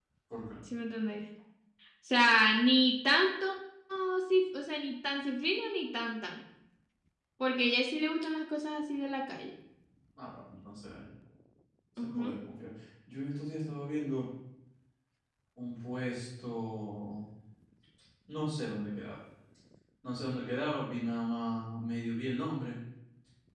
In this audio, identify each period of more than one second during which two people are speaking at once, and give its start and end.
none

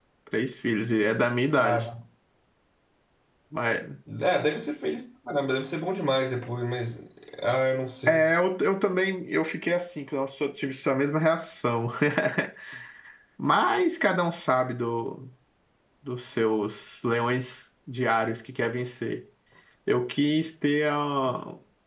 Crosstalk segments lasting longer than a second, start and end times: none

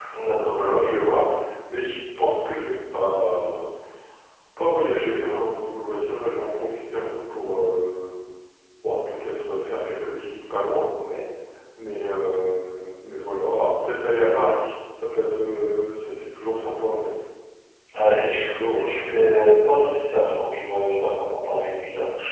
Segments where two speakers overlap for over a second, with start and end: 18.2-19.4

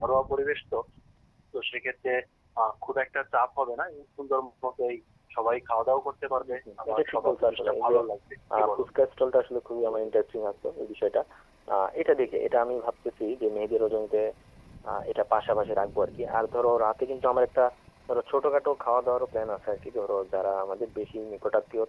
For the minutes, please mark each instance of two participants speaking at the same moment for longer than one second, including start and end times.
6.3-7.9

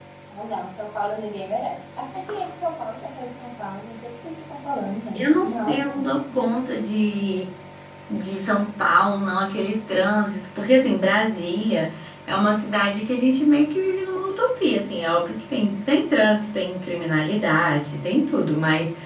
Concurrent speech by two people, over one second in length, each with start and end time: 5.1-6.5

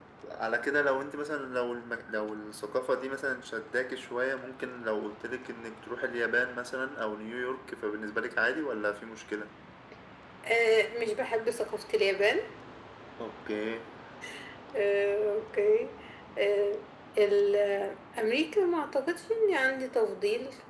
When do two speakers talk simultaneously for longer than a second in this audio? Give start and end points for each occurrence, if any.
none

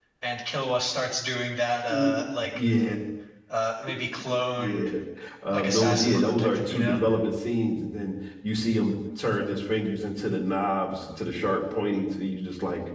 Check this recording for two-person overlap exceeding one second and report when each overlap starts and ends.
5.5-7.0

